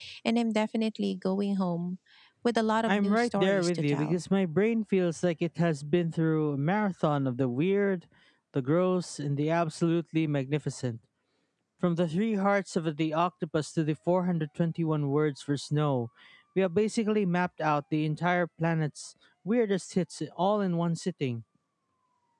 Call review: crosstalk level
present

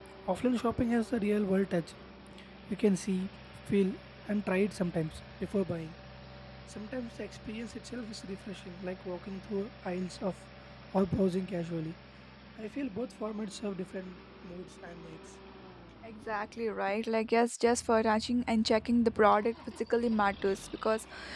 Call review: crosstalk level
none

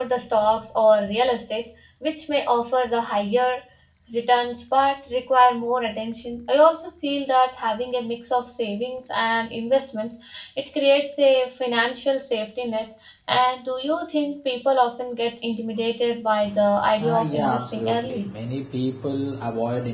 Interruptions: present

